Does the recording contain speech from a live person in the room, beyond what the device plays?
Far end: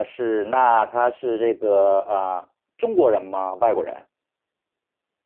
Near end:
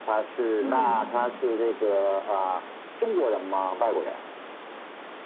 Yes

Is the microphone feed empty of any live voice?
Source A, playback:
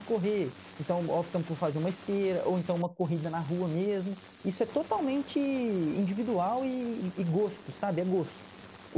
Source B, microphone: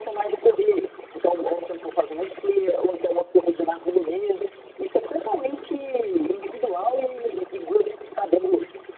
Yes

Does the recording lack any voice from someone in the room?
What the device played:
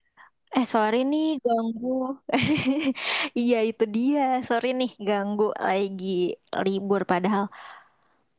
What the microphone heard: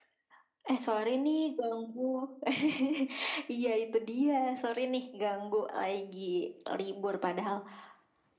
Yes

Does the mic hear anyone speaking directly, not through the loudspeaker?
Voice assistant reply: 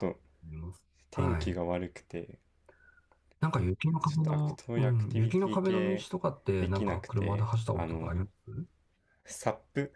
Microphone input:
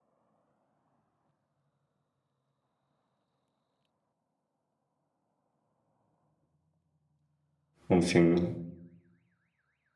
Yes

